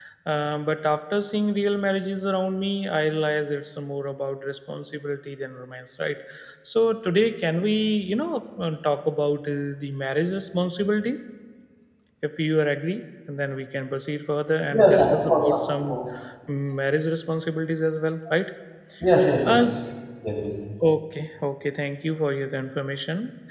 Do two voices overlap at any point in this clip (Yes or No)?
Yes